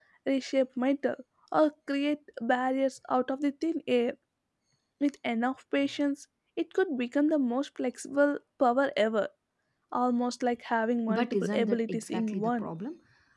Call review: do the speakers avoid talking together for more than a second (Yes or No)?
No